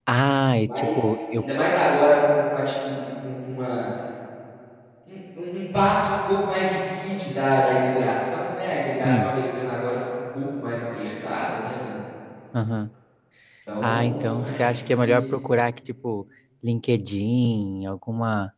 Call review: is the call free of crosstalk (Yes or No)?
No